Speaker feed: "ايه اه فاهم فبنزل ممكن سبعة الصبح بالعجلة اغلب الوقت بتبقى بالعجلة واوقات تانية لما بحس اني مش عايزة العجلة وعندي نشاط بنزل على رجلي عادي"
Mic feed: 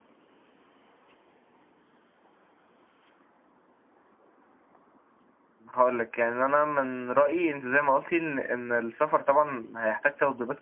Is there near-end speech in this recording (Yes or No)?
Yes